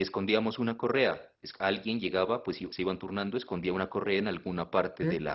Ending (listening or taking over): listening